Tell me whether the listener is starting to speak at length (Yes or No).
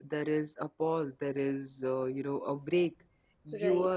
No